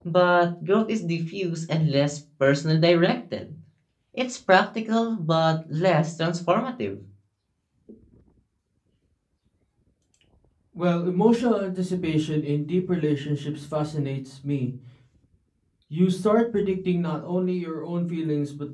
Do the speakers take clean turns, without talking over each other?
Yes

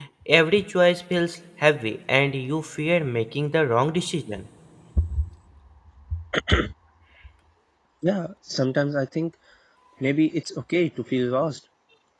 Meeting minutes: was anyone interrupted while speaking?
No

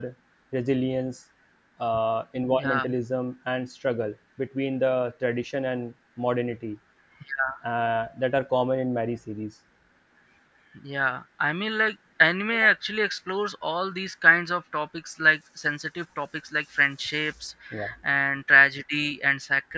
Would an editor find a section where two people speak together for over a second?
No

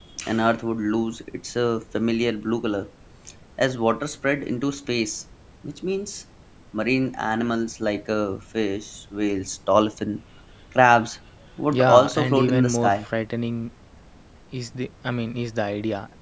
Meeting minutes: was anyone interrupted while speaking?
Yes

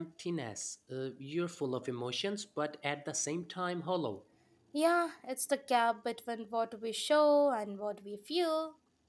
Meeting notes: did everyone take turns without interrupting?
Yes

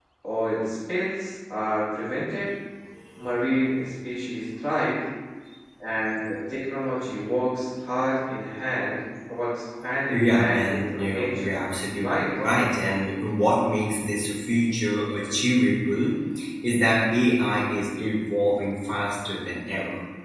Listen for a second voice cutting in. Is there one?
Yes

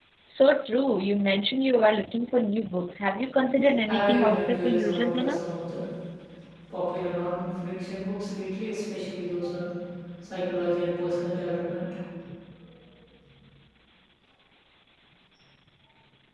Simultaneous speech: Yes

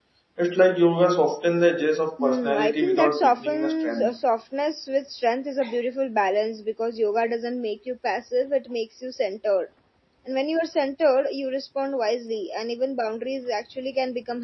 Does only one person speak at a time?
No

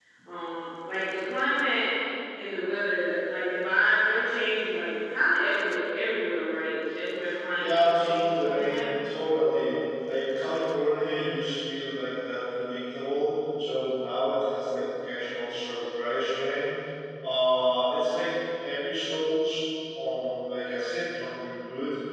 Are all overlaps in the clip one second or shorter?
No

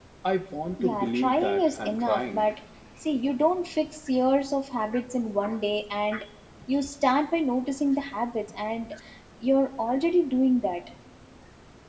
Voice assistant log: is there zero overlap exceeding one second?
No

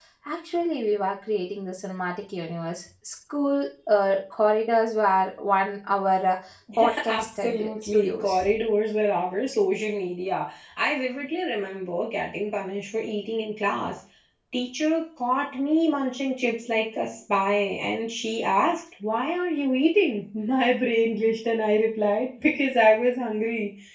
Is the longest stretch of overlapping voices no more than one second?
No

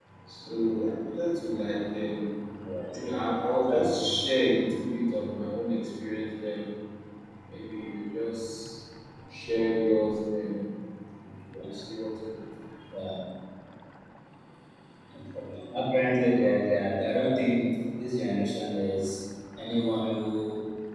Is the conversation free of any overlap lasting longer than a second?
Yes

